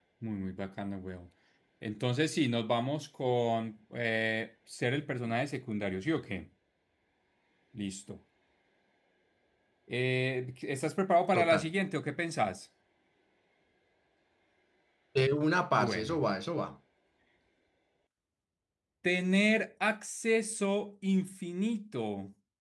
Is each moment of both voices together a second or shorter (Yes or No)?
Yes